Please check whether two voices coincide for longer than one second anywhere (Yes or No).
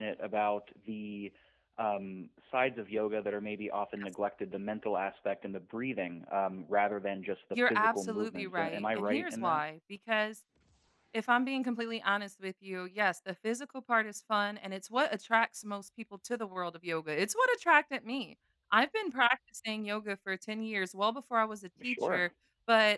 Yes